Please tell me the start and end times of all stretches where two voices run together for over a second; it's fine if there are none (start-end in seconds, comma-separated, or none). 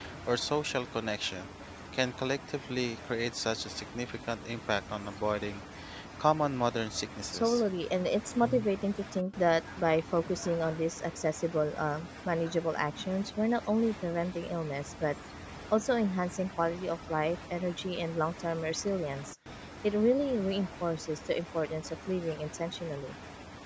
none